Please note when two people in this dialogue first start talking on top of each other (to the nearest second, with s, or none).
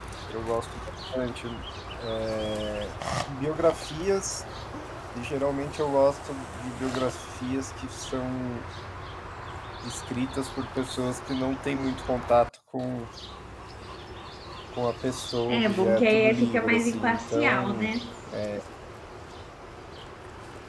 15 s